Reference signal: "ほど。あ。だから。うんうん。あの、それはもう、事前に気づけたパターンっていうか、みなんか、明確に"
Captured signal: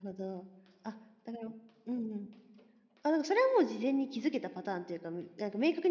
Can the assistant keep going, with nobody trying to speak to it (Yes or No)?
Yes